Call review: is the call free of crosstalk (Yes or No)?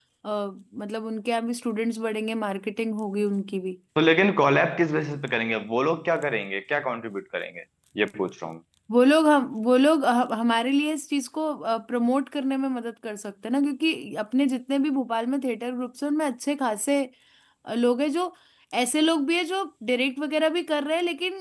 Yes